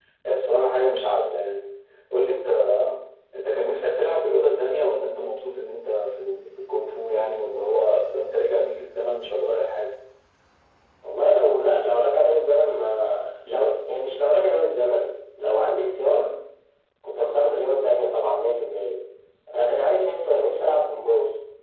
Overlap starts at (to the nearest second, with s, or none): none